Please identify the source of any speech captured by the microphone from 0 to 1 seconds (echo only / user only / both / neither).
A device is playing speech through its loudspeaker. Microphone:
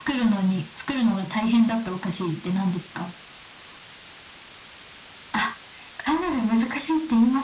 echo only